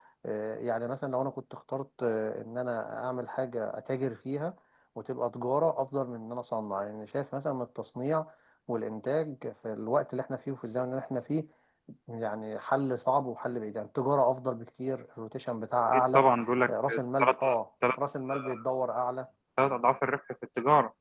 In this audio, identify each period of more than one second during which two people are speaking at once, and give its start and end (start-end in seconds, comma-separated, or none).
none